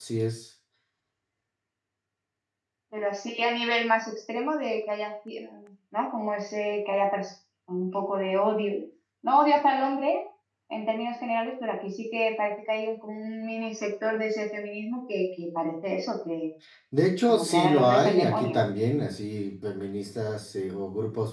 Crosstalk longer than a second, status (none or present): present